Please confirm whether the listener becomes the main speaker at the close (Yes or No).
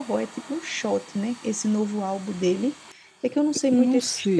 Yes